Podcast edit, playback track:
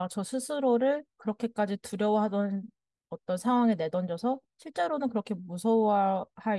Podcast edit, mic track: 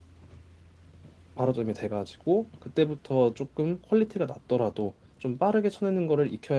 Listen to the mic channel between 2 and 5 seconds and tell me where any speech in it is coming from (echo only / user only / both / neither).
user only